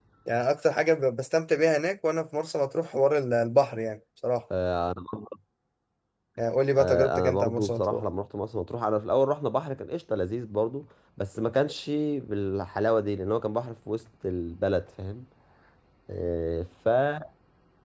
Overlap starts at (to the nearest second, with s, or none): 7 s